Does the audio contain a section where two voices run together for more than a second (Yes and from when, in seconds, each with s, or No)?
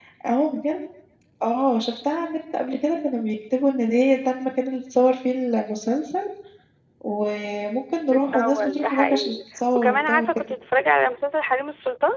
Yes, from 8.1 s